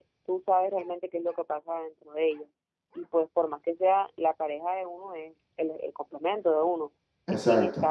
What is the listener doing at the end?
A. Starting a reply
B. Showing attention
B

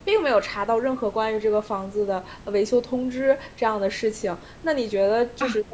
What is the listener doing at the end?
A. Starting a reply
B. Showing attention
B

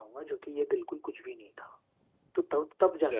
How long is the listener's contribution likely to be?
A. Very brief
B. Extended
A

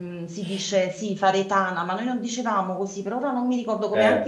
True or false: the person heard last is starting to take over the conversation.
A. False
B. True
B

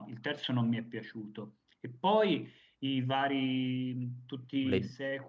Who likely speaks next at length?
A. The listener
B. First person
B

